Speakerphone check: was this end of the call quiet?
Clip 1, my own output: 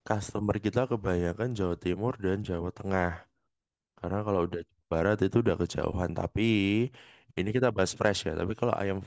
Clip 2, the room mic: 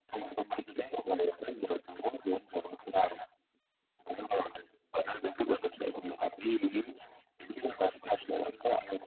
Yes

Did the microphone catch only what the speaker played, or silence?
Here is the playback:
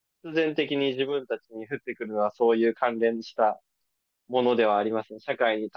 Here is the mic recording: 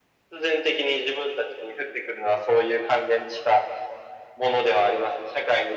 Yes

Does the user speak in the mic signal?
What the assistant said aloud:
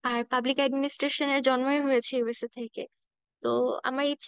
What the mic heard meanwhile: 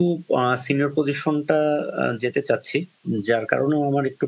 Yes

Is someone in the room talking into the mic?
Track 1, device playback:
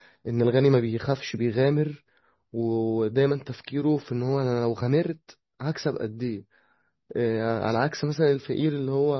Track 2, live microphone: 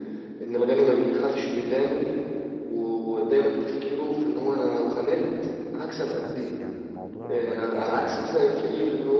Yes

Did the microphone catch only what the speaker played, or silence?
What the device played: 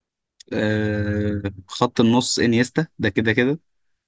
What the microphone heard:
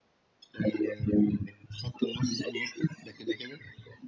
Yes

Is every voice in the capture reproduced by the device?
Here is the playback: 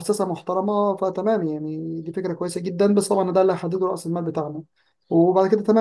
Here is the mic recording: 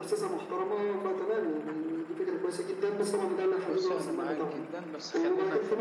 No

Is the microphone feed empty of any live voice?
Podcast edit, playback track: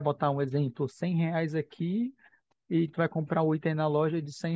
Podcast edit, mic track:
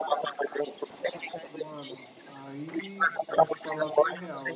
No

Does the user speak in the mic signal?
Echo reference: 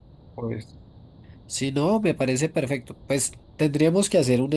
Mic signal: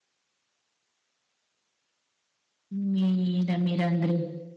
Yes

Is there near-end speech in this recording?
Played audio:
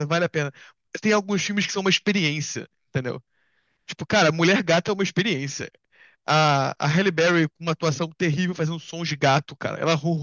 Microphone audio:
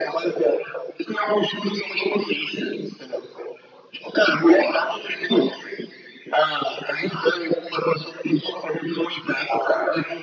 No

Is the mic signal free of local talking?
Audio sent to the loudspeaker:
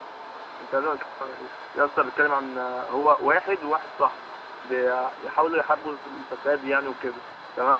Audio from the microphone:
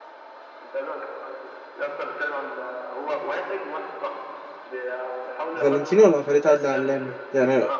No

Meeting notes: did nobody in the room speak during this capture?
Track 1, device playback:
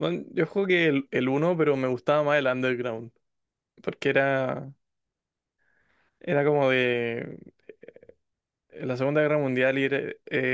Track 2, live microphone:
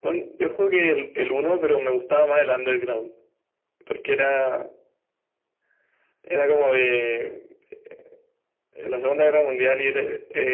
Yes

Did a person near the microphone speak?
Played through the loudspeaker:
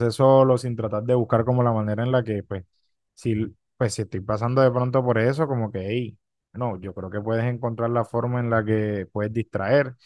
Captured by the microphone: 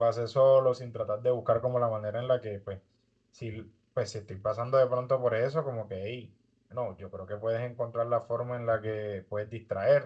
No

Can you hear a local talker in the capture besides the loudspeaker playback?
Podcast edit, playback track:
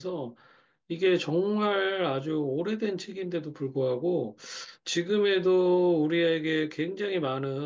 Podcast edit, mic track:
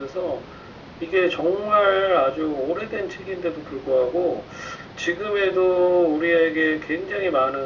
No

